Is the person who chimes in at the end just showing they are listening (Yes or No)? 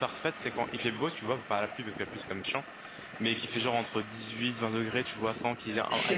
Yes